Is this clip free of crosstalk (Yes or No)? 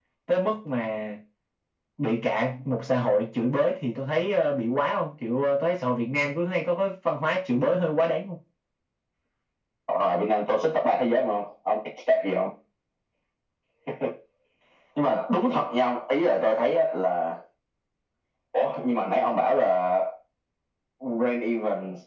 Yes